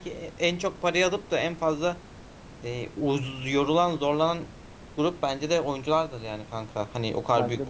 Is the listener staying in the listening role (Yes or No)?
Yes